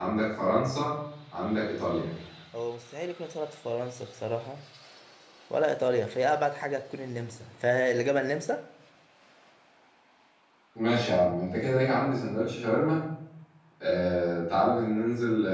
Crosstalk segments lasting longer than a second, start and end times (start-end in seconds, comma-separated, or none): none